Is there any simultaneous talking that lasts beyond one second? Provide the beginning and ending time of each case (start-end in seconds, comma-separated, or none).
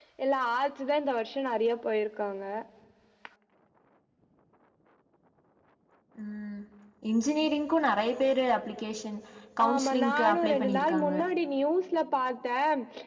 9.7-11.1